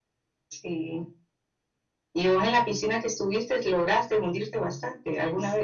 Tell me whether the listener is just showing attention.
No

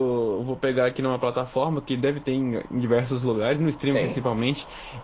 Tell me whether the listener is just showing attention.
Yes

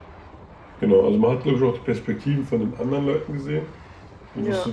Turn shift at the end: No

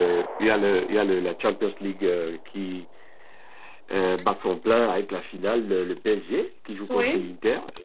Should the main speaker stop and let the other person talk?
No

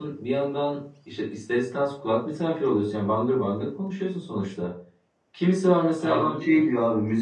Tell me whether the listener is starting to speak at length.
No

